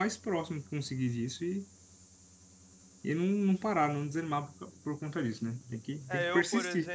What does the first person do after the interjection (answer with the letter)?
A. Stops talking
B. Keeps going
A